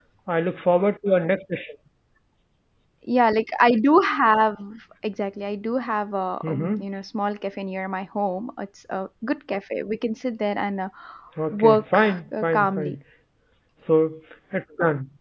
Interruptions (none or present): present